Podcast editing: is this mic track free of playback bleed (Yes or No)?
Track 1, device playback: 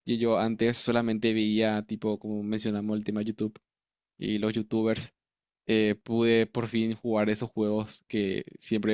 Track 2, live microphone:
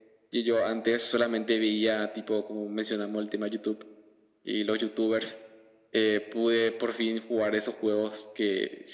No